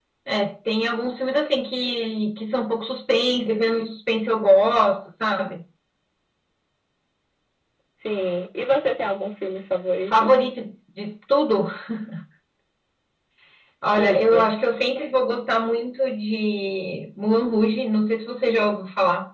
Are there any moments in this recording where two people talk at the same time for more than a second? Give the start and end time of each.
none

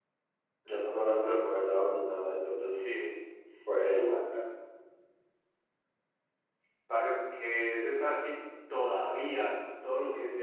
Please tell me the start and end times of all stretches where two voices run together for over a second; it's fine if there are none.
none

